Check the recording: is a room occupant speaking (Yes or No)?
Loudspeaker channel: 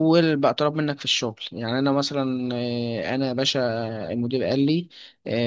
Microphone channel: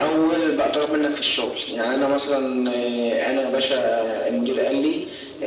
No